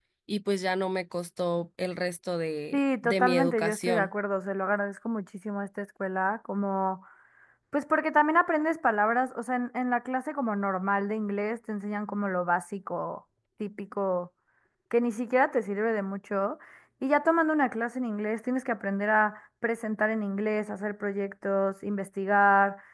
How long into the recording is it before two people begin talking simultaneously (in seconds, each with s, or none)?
2.7 s